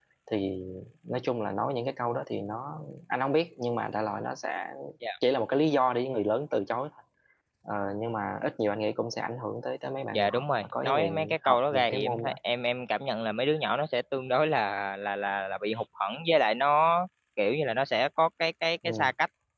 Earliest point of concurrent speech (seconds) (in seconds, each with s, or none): 10.1 s